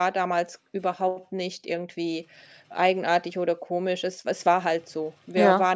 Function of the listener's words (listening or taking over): listening